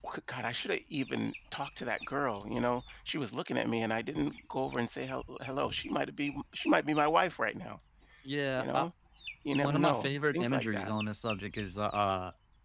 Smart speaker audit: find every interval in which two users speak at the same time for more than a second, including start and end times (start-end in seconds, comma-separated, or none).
9.6-10.9